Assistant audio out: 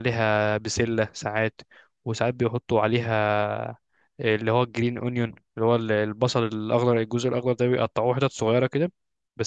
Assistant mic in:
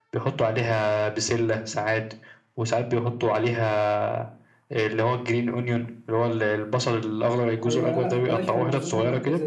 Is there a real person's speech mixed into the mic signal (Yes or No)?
Yes